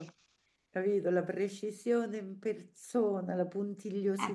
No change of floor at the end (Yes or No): No